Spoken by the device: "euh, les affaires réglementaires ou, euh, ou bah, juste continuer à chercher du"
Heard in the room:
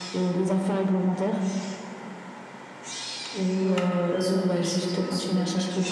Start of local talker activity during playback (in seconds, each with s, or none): 3.6 s